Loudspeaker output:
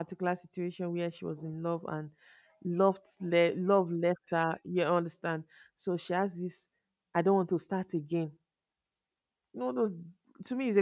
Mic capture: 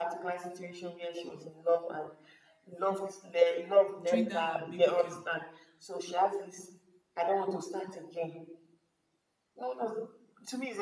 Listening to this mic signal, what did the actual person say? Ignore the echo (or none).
trained that her baby girl.